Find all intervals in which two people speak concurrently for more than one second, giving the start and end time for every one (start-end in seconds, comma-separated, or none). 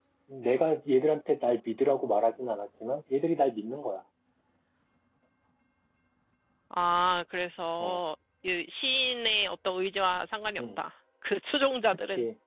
none